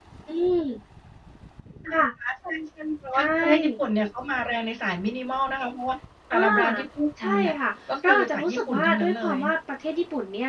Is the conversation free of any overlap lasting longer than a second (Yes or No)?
No